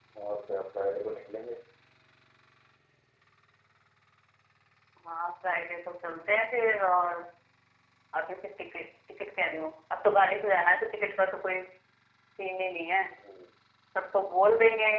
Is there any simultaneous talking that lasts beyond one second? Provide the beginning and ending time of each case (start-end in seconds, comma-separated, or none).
none